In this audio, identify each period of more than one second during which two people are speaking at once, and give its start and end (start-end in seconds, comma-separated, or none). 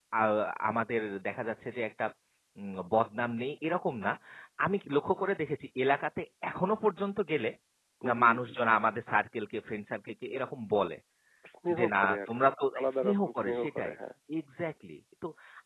11.8-13.9